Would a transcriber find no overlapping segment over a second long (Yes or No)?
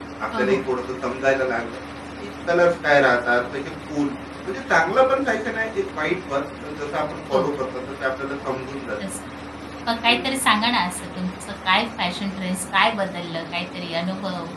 Yes